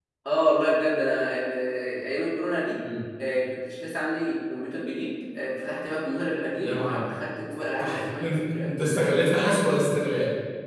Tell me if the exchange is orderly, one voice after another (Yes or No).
No